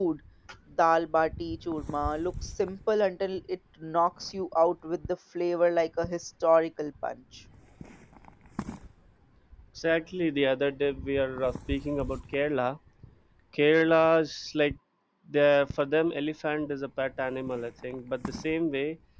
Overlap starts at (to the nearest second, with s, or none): none